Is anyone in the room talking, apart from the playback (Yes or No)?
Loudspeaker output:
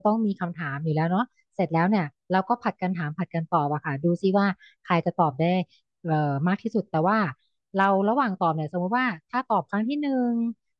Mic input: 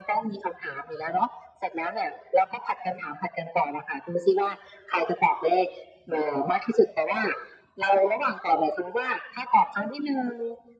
No